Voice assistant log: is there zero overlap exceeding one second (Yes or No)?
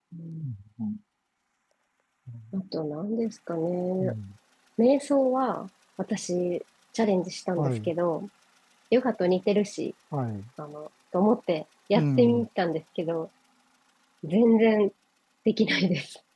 Yes